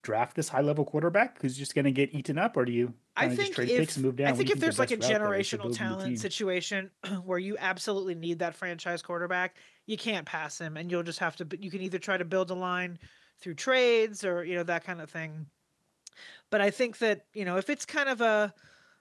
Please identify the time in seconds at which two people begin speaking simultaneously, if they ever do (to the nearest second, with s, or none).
3 s